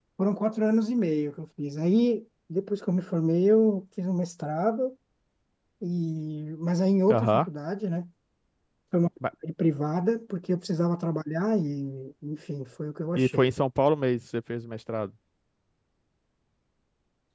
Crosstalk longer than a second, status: none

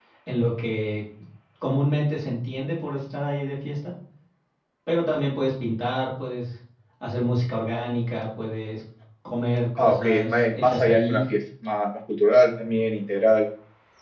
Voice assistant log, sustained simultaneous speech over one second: present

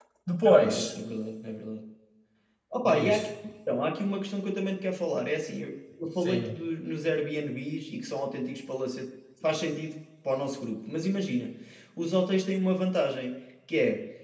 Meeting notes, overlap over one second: none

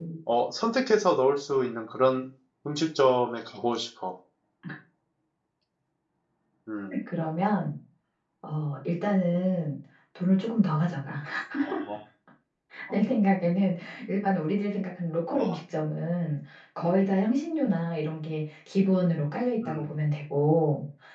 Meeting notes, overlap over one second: none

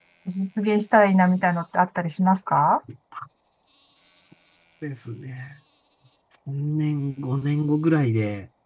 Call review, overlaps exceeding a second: none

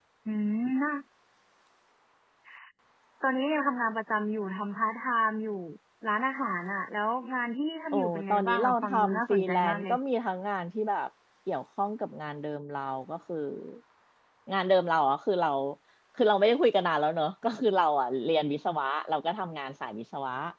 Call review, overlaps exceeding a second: present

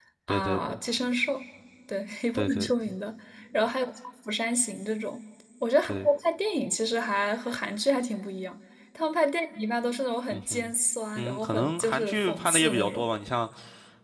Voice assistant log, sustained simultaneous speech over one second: present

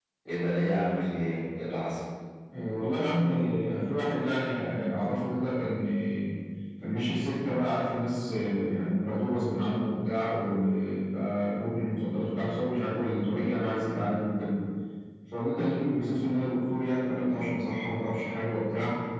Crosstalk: none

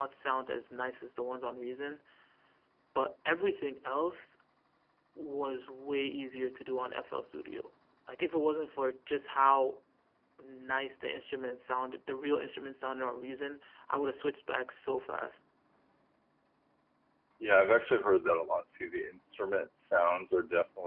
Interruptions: none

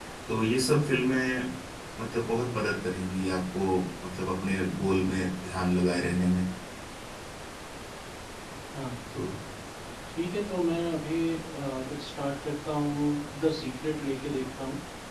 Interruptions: none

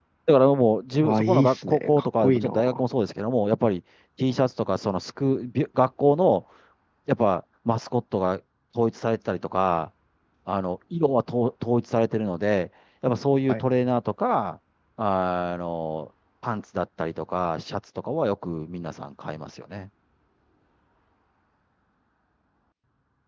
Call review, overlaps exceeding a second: present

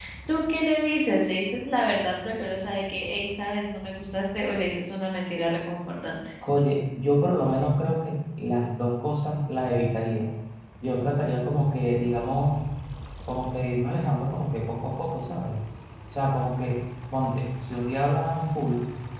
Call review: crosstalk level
none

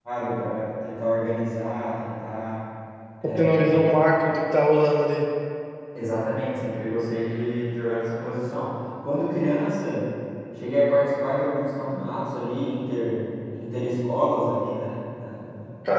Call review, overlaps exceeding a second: none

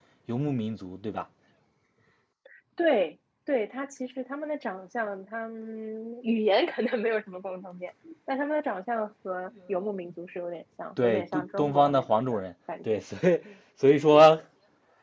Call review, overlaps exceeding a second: present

